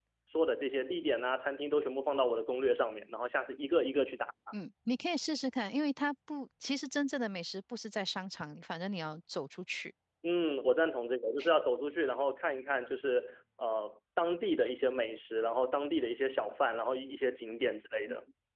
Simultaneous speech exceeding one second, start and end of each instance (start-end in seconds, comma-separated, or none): none